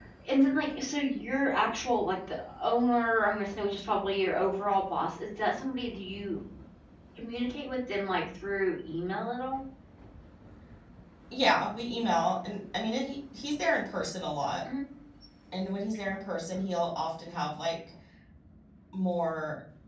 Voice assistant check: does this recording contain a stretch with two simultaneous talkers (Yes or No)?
No